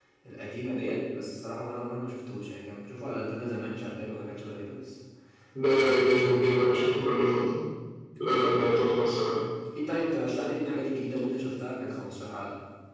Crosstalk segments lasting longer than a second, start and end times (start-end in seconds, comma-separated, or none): 5.7-7.0